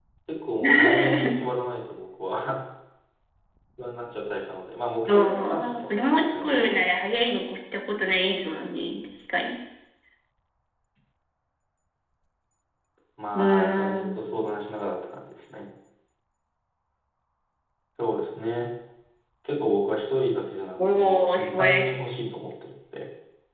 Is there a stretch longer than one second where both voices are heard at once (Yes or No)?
Yes